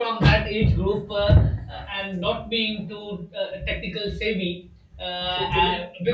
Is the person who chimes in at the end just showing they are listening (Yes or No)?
Yes